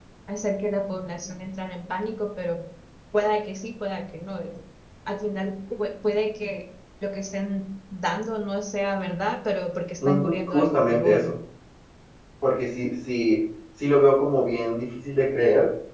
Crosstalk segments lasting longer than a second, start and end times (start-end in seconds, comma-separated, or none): 10.1-11.3